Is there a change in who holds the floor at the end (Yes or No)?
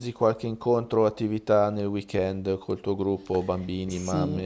Yes